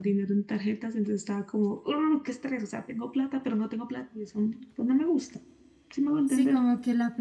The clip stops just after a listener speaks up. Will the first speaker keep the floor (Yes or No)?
No